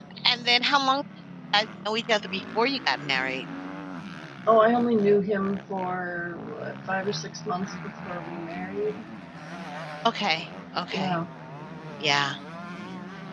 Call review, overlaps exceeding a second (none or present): none